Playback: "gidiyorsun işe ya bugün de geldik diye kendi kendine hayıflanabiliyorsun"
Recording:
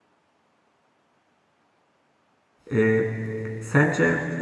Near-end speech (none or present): present